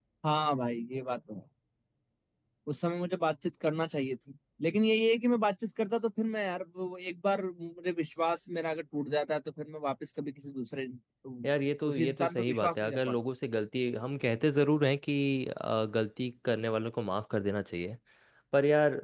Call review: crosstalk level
present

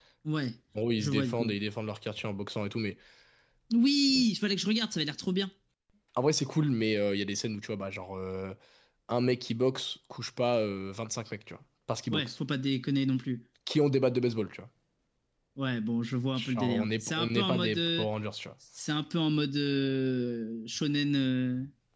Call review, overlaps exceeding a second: present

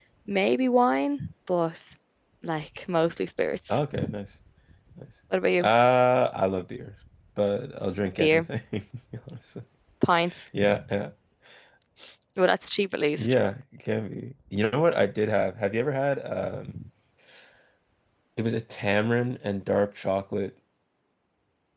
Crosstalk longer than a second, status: none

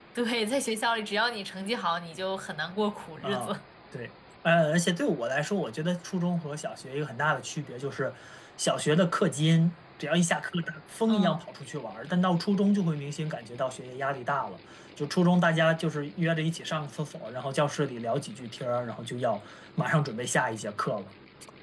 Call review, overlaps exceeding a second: none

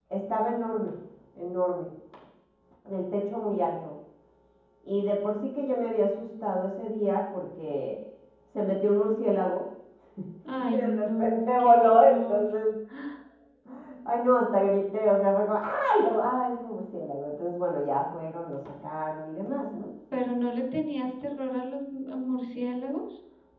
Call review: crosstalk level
present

